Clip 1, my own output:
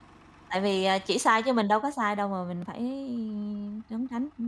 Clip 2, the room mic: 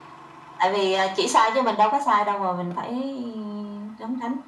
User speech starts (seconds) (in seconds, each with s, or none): none